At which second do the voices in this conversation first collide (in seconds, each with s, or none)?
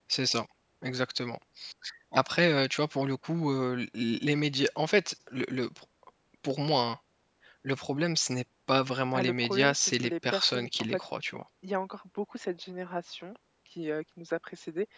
9.1 s